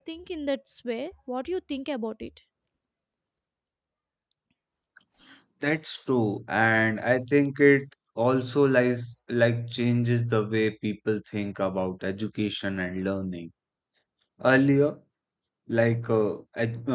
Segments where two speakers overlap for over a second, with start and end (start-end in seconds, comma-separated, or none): none